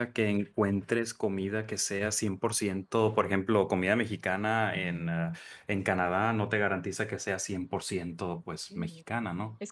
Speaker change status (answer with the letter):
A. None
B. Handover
B